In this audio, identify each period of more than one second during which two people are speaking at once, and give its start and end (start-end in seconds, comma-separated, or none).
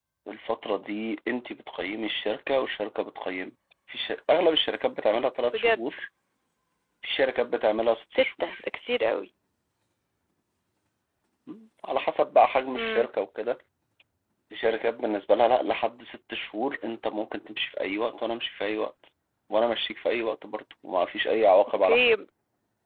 none